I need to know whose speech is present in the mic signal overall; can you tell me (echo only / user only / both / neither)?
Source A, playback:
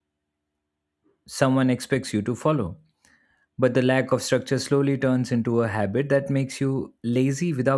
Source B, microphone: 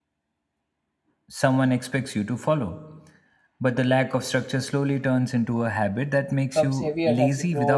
both